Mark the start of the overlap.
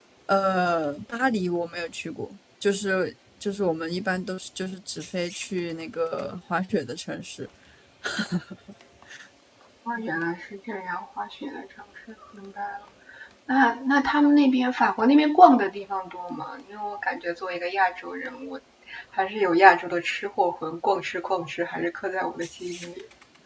none

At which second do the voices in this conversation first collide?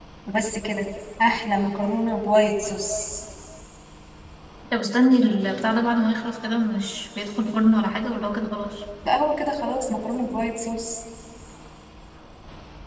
none

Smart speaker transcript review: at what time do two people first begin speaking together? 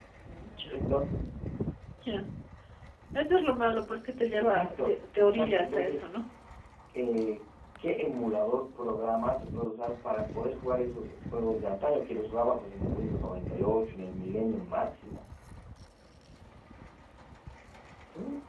4.4 s

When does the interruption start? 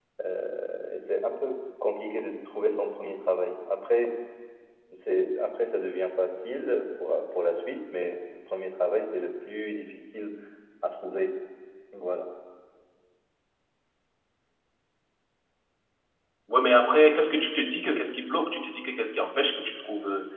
none

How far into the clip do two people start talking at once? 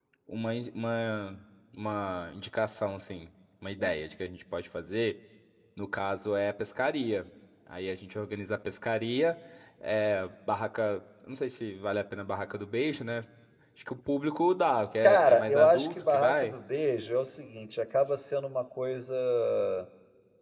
15.0 s

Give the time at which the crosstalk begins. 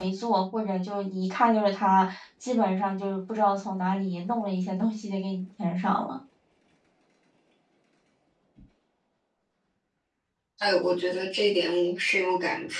none

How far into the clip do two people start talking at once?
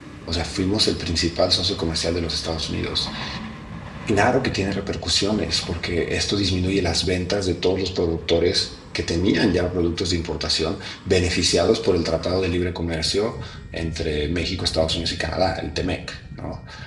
none

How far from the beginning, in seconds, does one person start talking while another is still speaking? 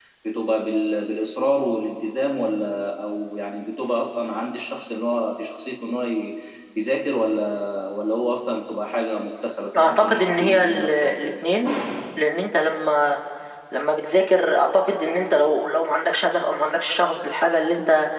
9.7 s

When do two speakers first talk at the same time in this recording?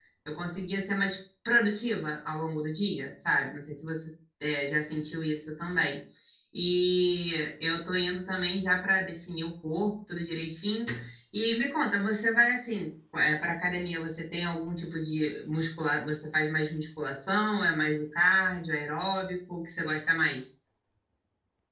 none

